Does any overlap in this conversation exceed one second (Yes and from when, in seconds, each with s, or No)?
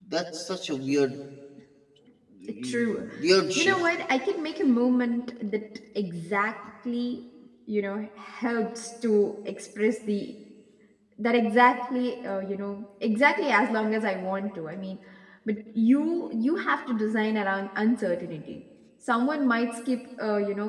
No